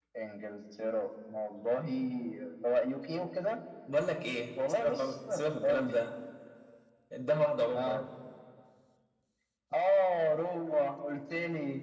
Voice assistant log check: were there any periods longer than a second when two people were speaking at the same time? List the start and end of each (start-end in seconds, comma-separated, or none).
4.6-5.9